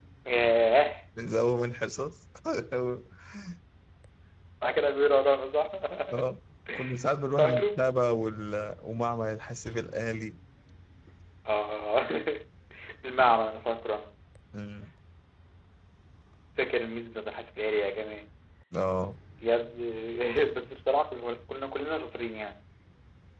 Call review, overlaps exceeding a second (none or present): none